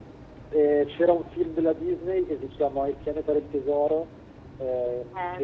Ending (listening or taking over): listening